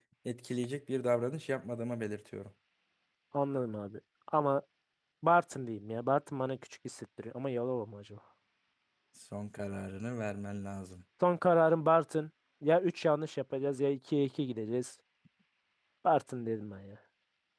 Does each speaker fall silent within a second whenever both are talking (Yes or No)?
Yes